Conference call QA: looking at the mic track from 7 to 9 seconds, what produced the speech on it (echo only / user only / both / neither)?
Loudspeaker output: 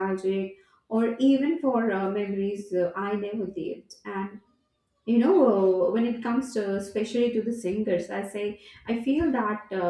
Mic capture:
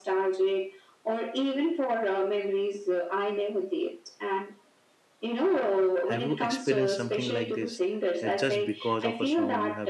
both